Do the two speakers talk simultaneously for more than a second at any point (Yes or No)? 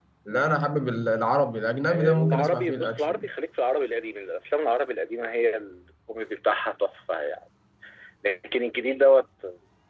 Yes